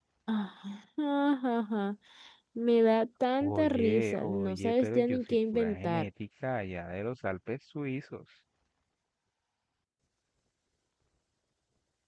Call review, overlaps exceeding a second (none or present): present